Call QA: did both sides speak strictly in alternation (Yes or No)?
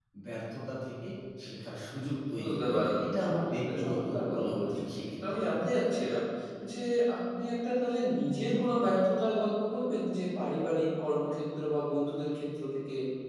No